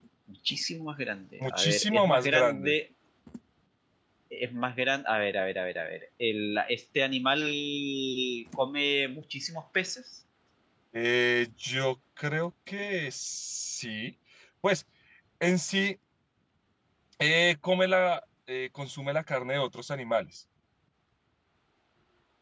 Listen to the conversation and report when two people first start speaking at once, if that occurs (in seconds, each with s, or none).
1.4 s